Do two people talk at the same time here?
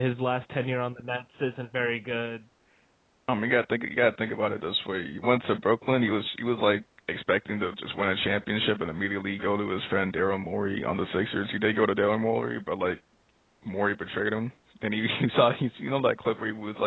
No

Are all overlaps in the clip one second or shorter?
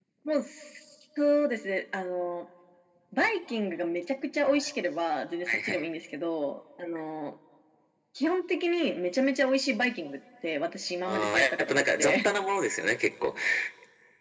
No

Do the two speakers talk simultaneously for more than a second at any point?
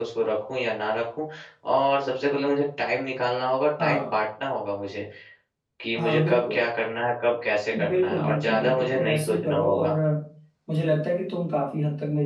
Yes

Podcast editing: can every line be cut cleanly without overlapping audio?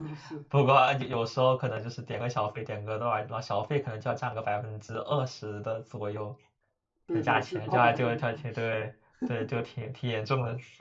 No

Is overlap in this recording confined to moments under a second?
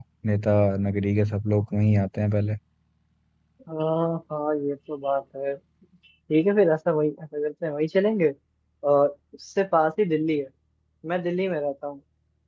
Yes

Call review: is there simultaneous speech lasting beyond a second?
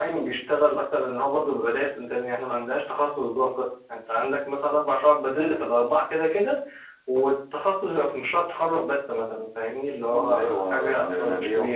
Yes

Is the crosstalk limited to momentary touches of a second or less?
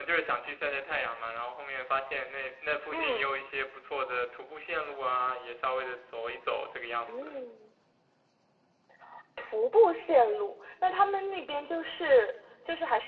Yes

